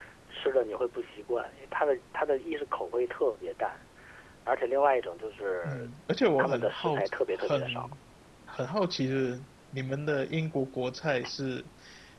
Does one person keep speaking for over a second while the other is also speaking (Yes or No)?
Yes